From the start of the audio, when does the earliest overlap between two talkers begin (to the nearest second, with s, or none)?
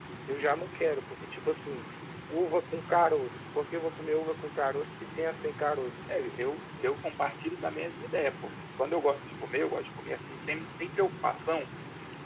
none